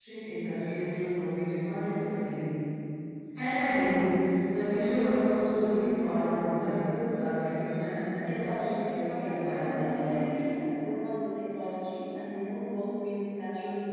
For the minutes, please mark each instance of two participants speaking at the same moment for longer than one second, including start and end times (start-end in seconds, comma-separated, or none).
8.3-10.1